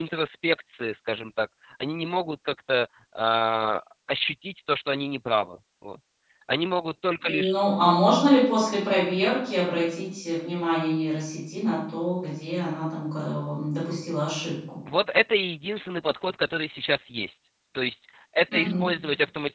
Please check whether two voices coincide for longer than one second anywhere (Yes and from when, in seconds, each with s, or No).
No